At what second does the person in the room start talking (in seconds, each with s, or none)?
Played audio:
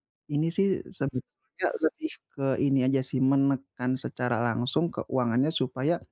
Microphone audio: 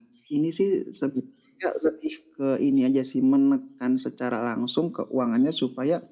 none